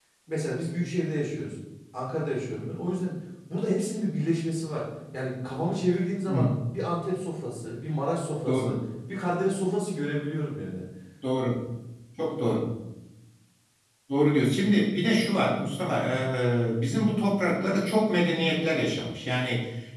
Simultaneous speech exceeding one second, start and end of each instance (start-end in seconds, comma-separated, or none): none